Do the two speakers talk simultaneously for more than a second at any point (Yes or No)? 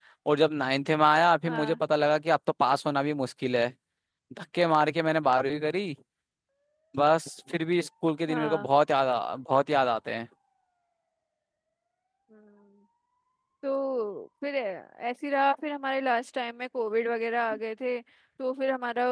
No